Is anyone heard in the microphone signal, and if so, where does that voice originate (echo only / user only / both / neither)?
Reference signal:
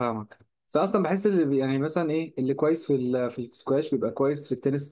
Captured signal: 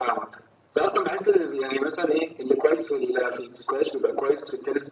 echo only